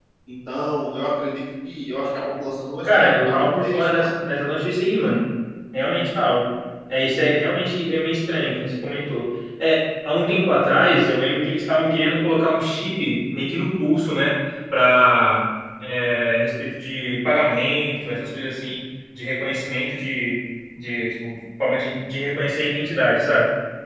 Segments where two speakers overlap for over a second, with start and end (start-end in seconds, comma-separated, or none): 2.8-4.1